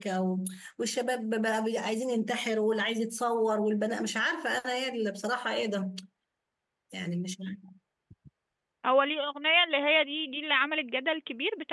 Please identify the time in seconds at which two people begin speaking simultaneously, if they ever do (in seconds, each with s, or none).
none